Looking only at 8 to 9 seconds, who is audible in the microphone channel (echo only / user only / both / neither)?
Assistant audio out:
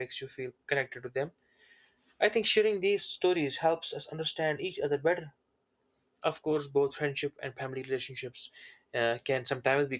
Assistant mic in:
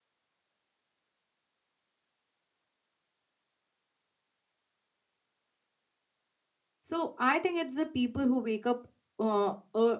user only